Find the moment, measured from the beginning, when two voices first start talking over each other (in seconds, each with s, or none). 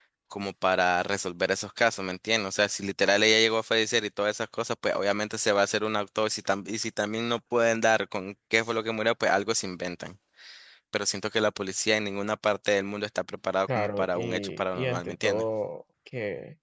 13.7 s